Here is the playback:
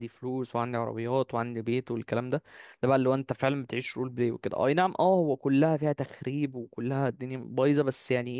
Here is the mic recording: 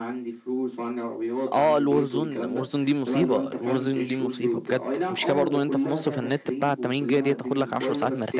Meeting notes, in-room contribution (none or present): present